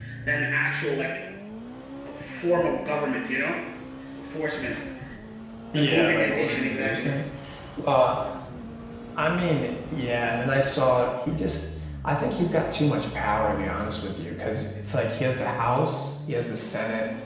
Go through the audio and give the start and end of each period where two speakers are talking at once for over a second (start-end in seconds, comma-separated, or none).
5.8-7.2